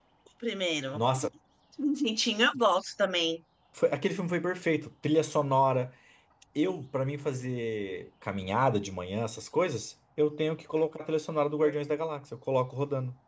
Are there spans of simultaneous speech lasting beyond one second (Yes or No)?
No